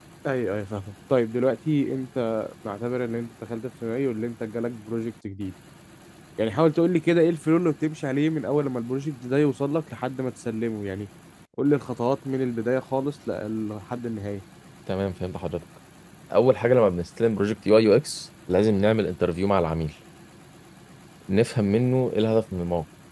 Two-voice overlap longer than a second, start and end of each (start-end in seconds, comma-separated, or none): none